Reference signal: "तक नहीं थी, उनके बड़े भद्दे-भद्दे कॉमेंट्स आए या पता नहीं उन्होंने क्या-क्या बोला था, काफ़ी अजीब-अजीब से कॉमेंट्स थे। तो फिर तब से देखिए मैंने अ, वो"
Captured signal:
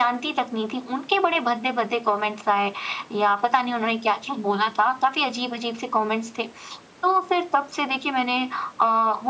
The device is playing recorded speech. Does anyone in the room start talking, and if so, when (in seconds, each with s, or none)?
none